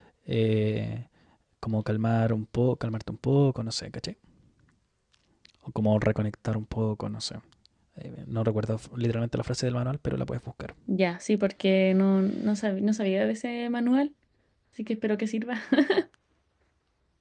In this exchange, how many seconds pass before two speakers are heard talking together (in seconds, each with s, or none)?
none